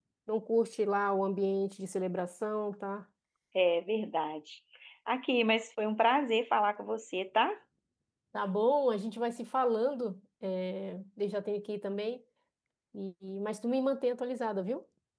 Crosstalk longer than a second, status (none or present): none